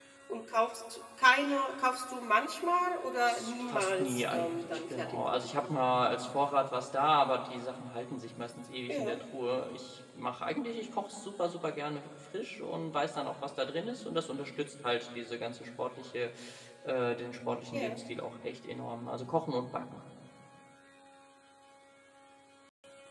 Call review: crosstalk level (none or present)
present